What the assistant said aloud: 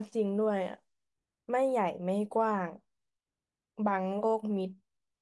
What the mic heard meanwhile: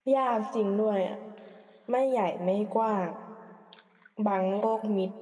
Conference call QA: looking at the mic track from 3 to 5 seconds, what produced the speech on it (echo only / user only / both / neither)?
echo only